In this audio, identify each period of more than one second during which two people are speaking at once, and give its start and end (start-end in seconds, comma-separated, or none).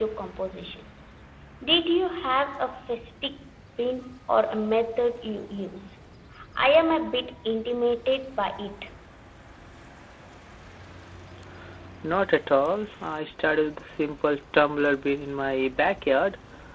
none